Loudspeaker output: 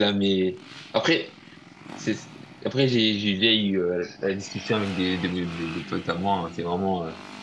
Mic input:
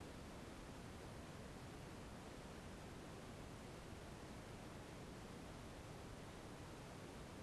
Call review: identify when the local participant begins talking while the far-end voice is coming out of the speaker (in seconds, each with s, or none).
none